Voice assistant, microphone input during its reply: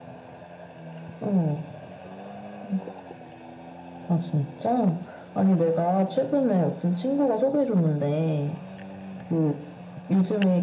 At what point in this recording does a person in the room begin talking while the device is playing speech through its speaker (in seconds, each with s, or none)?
none